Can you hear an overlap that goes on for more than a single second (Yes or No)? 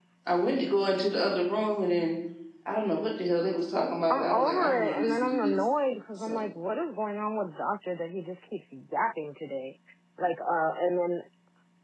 Yes